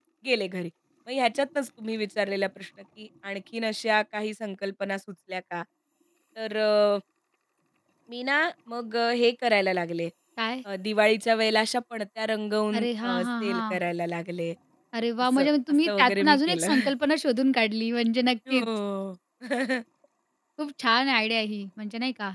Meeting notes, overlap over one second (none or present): present